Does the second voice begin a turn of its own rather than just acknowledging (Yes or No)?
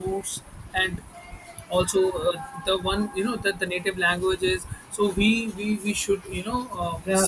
Yes